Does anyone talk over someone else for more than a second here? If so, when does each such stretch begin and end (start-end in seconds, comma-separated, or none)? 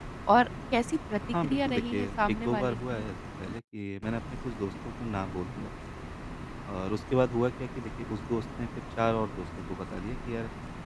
1.4-3.0